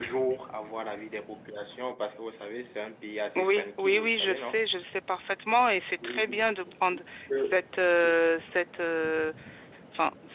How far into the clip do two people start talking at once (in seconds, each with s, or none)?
3.4 s